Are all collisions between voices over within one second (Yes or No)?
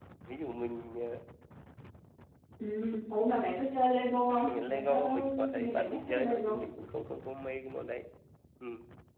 No